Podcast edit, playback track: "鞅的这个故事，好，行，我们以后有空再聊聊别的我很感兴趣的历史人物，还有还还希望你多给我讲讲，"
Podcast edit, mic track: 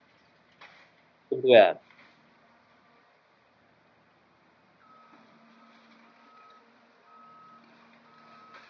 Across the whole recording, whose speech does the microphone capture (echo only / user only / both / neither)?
user only